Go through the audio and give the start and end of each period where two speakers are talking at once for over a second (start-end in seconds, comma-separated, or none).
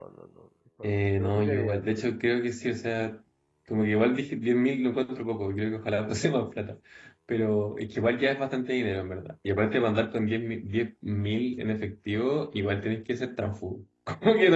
0.8-2.0